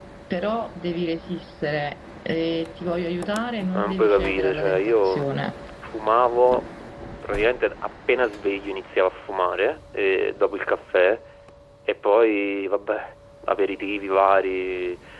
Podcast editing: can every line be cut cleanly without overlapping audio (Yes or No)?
No